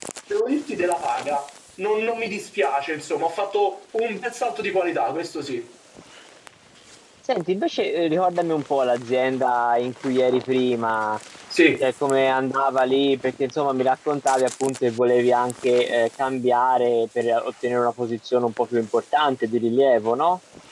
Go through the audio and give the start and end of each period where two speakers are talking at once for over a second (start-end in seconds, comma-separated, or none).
none